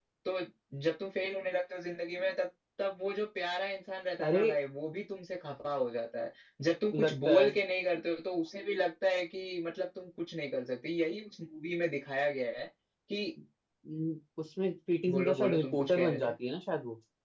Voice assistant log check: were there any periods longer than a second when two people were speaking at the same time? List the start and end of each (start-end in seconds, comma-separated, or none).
15.1-16.3